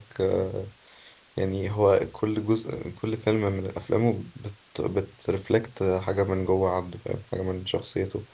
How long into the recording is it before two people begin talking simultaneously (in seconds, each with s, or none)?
none